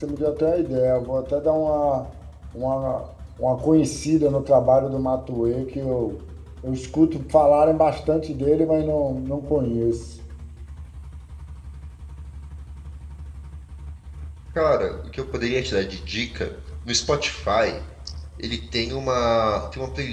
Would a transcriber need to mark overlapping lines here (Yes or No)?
No